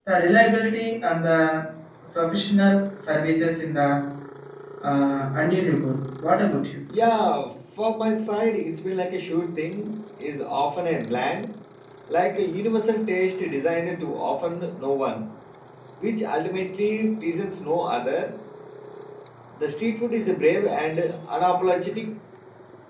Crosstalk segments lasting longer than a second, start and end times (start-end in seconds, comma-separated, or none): none